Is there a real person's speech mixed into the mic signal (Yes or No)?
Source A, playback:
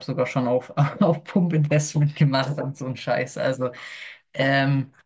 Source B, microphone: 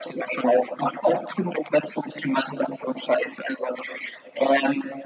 No